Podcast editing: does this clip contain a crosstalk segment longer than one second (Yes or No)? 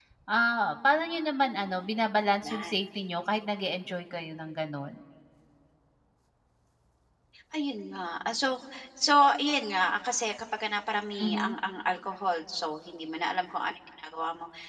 No